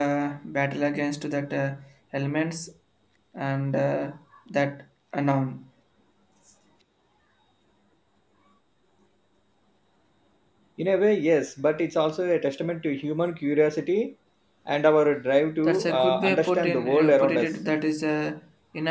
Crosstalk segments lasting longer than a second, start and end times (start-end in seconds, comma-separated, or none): 15.6-17.5